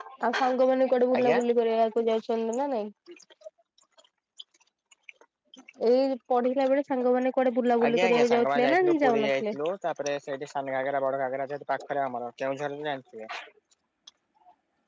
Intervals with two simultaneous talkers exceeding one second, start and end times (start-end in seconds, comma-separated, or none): 7.8-9.6